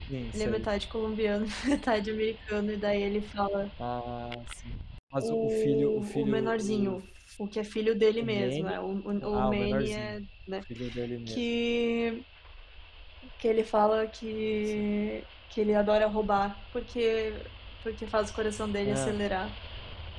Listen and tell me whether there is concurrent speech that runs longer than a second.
Yes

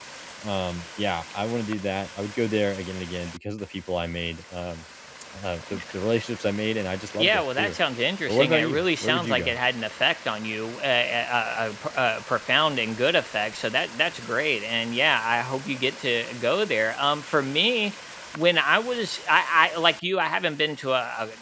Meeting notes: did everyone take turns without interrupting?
No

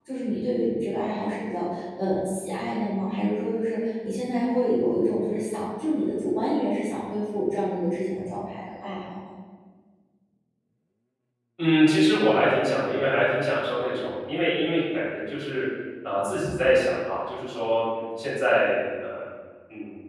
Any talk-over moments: No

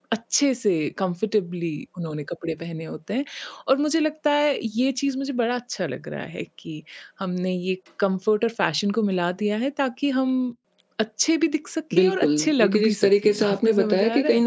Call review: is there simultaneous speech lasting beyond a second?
Yes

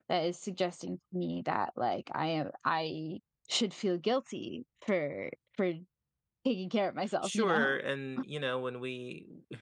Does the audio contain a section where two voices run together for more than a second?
No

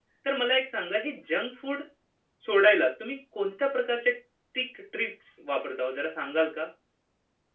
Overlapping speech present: No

